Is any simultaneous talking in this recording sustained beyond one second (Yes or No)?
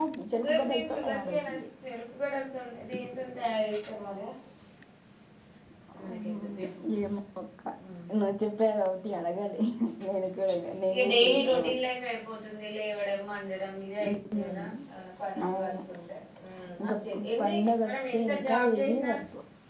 Yes